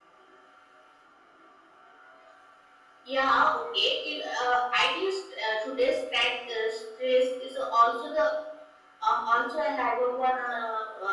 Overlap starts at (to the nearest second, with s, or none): none